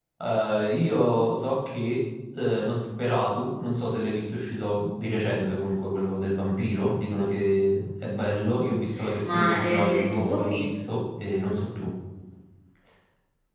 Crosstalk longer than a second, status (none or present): present